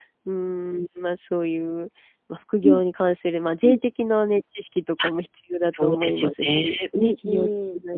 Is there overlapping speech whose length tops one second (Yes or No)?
Yes